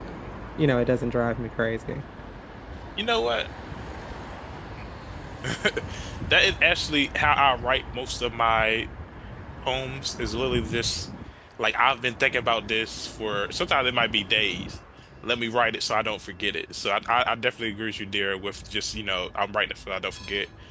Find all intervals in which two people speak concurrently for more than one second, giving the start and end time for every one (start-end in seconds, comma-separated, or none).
none